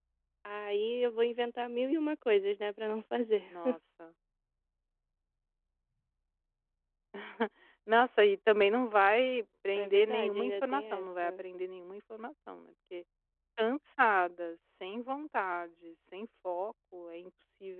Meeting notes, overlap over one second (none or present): present